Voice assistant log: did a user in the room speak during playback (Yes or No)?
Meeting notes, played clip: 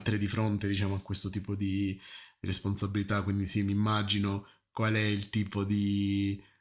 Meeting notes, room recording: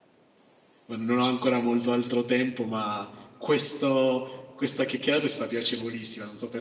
Yes